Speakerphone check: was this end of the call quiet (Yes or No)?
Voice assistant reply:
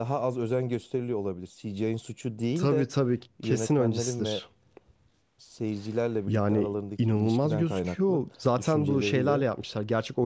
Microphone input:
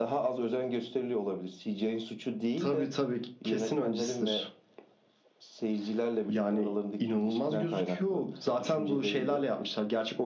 Yes